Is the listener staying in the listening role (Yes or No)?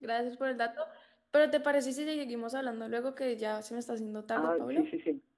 No